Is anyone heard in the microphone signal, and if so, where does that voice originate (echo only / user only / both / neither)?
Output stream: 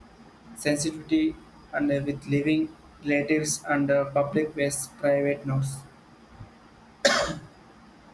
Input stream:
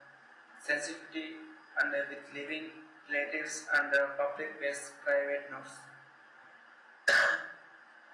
echo only